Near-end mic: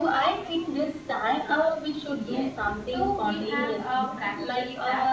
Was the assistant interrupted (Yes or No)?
Yes